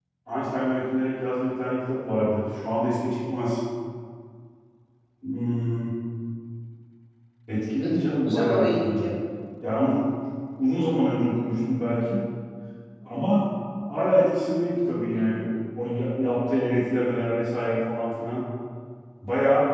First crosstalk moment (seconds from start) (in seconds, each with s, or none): 7.8 s